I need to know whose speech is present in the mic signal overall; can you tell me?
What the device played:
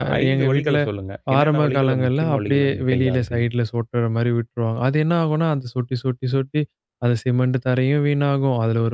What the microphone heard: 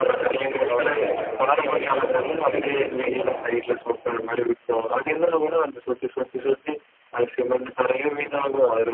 both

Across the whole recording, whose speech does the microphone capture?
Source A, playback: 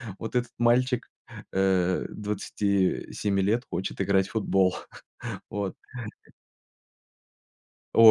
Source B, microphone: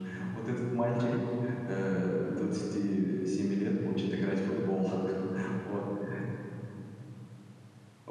both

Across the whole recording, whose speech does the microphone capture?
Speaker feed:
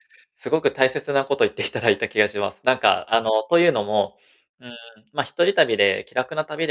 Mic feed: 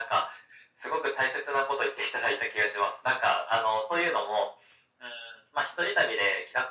echo only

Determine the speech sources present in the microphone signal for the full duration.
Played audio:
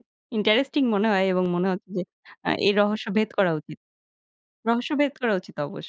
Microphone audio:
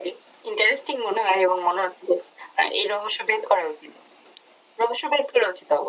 echo only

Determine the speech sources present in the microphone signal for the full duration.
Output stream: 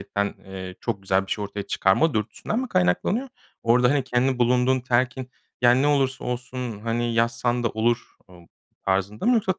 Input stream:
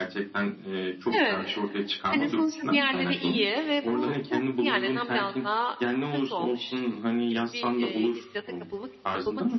both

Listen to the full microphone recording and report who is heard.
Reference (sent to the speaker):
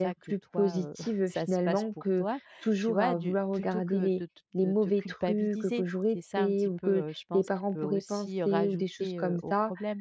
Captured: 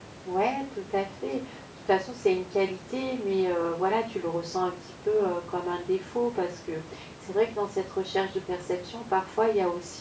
user only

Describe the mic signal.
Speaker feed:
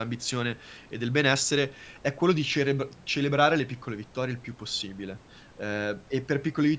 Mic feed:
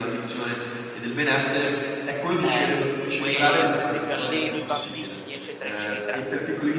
both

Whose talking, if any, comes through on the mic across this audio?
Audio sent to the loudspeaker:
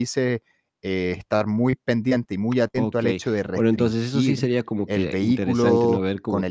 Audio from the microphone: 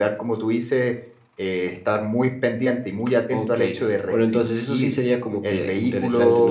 echo only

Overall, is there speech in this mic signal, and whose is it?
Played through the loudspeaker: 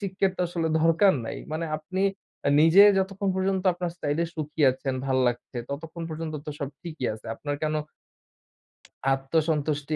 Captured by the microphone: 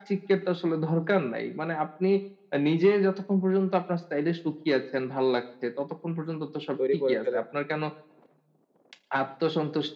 both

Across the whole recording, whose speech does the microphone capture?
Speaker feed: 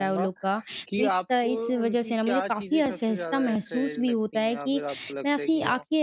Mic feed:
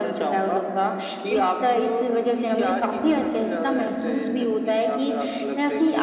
echo only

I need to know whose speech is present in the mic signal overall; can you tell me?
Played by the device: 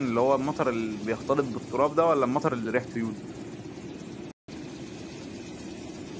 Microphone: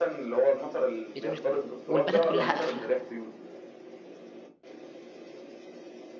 both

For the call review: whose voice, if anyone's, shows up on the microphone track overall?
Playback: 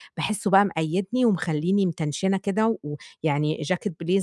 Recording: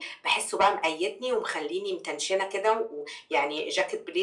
echo only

